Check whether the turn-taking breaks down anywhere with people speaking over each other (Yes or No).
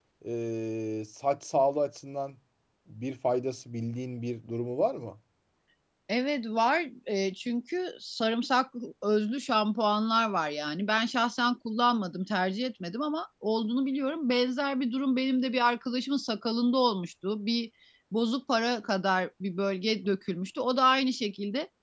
No